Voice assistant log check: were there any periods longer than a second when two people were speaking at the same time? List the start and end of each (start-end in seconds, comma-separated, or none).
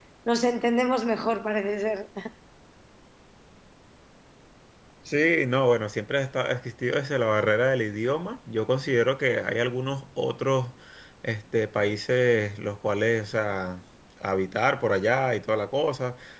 none